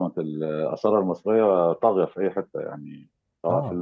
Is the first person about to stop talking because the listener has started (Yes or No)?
No